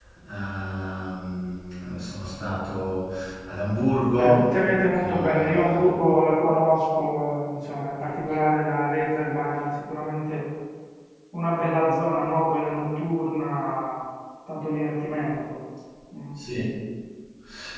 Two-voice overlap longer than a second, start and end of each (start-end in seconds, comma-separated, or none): 4.1-5.9